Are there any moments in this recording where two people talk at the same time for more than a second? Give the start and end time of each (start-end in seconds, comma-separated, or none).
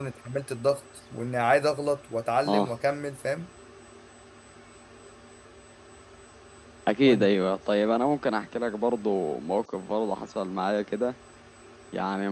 none